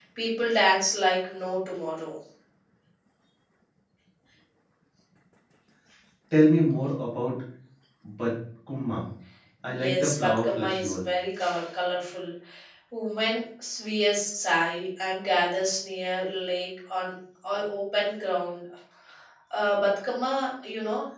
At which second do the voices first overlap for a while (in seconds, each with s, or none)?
9.7 s